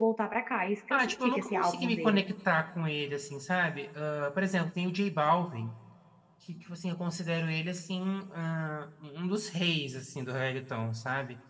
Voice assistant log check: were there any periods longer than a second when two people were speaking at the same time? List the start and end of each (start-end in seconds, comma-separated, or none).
0.9-2.2